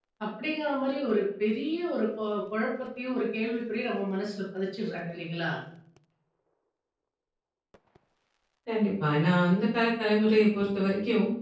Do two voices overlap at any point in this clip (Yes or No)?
No